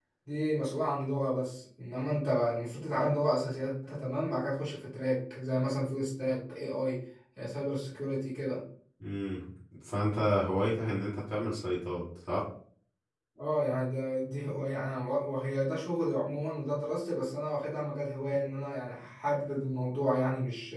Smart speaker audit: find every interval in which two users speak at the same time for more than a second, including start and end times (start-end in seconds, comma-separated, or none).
none